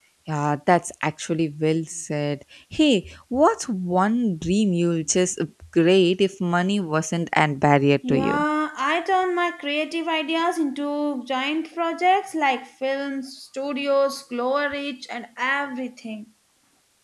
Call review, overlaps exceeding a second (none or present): none